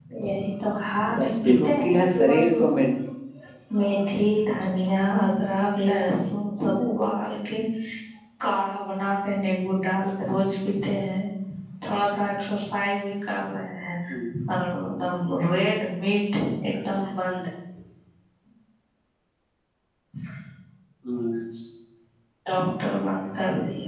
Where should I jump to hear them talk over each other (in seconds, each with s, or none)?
1.2 s